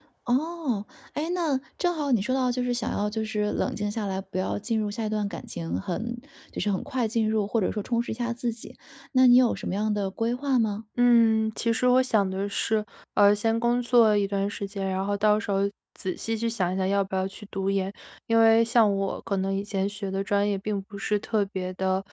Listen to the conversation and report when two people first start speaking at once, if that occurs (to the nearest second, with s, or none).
none